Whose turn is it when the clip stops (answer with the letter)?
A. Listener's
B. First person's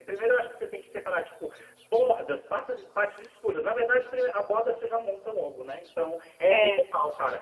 B